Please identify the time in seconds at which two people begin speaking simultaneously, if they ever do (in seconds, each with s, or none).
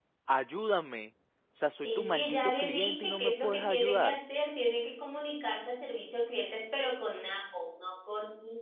1.8 s